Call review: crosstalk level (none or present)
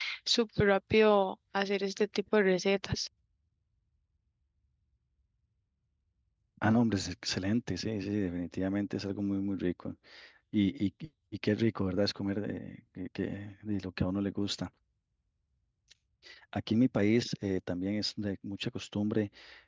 none